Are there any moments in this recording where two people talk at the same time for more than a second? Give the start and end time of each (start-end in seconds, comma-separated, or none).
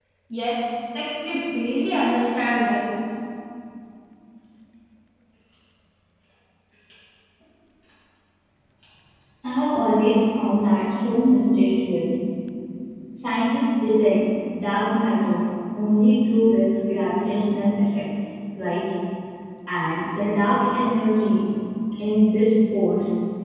none